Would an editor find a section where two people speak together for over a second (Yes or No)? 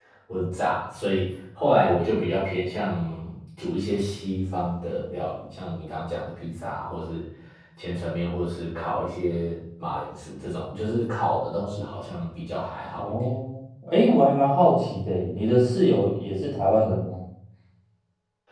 No